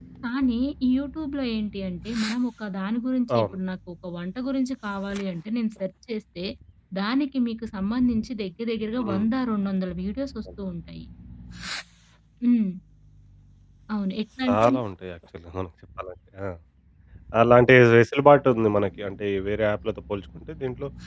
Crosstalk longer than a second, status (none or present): none